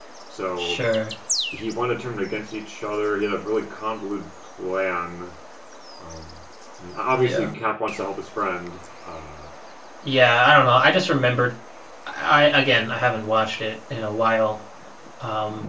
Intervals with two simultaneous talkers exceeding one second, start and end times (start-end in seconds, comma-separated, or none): none